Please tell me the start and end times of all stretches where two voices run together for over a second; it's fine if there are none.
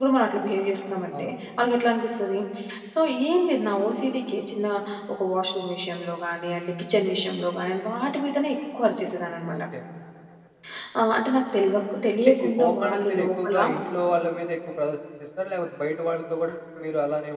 12.2-13.6

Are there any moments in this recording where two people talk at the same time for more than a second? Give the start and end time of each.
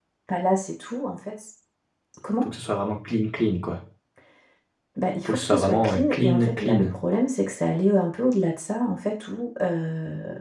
5.2-6.9

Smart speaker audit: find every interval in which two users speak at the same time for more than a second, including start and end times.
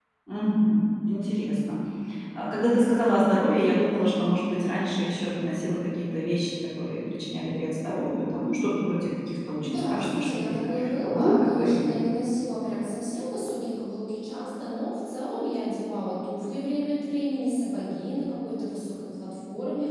9.6-11.9

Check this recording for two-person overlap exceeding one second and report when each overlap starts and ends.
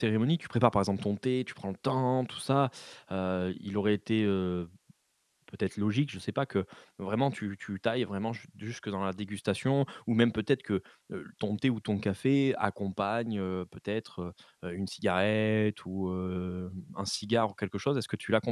none

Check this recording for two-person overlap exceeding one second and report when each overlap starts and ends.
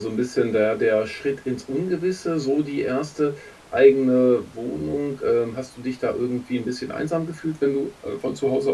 none

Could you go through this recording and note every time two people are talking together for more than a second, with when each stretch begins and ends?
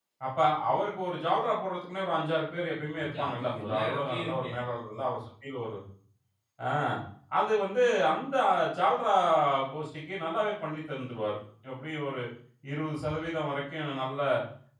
3.0-4.5

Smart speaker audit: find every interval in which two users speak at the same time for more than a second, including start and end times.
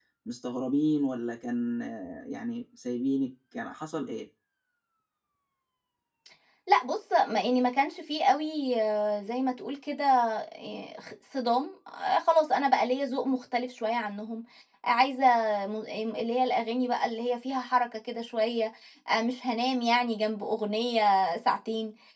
none

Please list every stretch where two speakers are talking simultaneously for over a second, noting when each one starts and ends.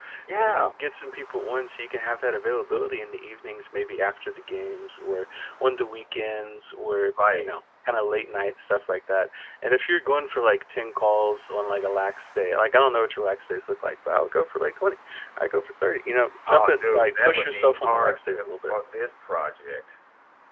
16.5-18.8

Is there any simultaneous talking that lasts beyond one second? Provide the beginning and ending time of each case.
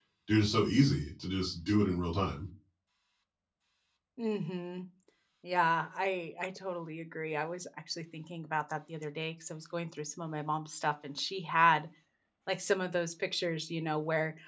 none

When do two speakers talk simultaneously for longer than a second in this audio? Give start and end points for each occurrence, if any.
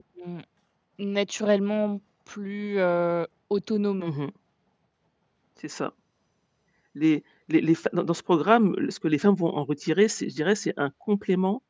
none

